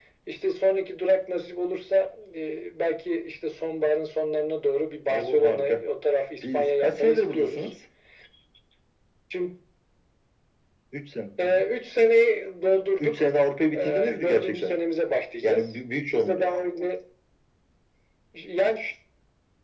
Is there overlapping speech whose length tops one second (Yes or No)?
Yes